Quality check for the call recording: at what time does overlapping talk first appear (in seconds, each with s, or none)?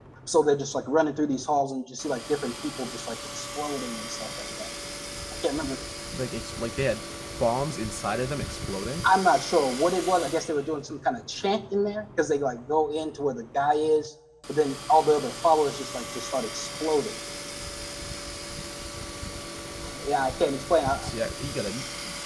none